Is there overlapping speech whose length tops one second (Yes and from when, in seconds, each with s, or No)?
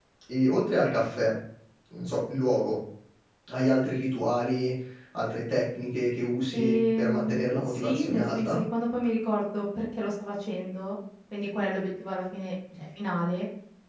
Yes, from 6.5 s